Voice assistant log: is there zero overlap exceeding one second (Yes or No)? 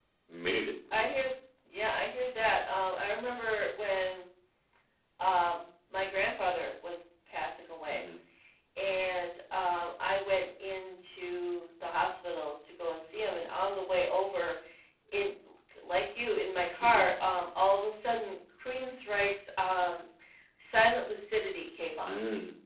Yes